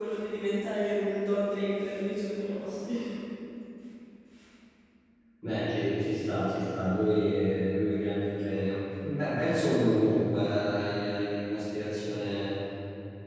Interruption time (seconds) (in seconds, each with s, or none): none